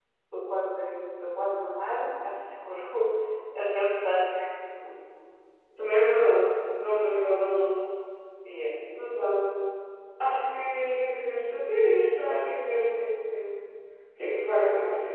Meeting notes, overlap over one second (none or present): none